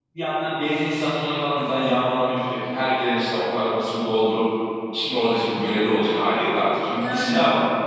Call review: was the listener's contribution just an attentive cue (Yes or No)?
Yes